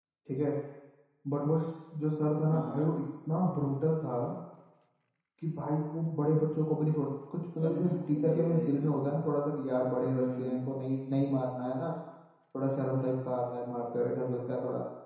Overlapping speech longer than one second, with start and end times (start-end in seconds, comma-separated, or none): 7.6-9.1